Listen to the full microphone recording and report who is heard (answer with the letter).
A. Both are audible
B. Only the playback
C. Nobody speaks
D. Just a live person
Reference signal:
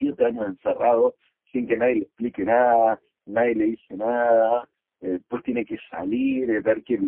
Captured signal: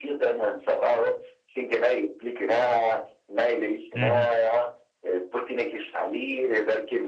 A